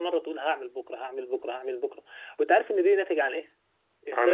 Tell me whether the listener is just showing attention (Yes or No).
Yes